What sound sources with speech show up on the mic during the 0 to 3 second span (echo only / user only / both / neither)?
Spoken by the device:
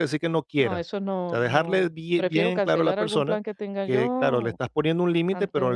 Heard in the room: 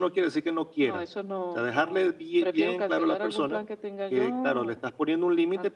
echo only